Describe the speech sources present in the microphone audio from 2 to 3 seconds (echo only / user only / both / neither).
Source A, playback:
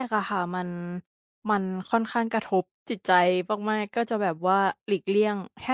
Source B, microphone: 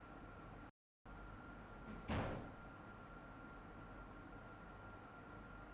neither